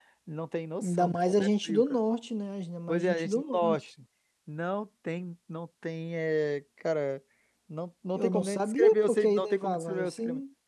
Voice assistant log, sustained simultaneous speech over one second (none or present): present